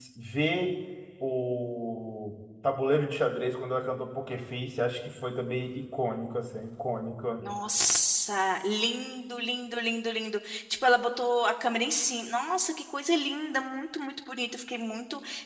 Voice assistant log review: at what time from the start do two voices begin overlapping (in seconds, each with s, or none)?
none